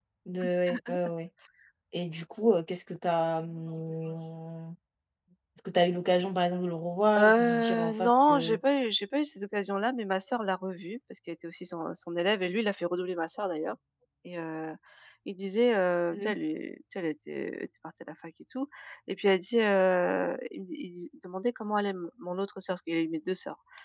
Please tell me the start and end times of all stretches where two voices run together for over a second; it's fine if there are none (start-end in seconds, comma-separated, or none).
7.2-8.6